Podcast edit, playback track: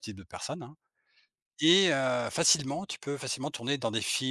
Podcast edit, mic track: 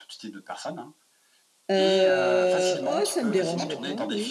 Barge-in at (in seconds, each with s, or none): 1.7 s